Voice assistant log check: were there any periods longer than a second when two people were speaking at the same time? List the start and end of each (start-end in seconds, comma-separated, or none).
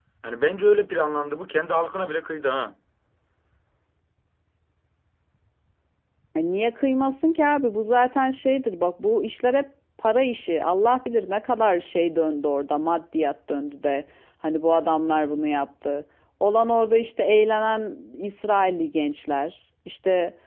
none